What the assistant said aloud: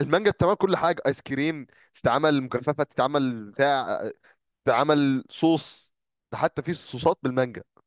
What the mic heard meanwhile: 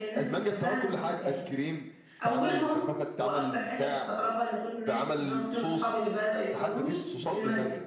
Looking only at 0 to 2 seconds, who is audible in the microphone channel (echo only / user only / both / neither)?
both